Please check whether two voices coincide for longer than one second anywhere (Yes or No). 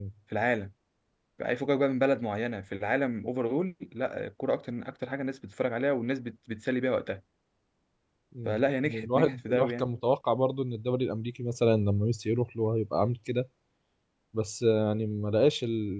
Yes